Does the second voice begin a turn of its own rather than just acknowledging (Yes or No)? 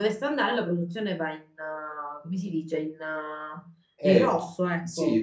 Yes